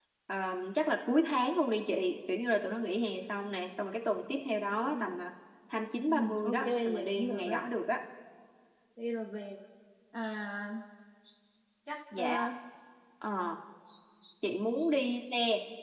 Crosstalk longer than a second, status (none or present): present